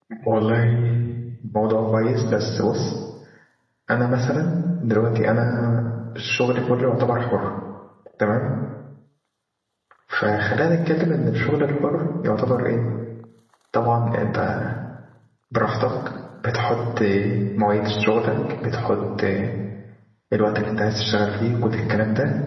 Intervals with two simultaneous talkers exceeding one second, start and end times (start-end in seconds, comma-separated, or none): none